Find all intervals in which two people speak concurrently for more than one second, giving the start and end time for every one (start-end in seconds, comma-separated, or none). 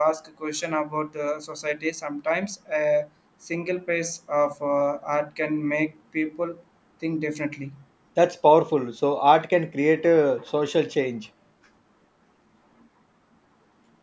none